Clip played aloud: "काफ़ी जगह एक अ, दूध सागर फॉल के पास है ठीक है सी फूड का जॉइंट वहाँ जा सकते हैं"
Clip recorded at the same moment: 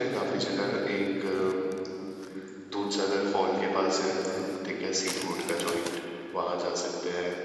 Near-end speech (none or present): none